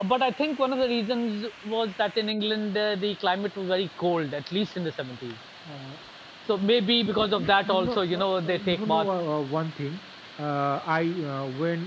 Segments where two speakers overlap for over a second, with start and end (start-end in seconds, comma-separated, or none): 7.4-9.1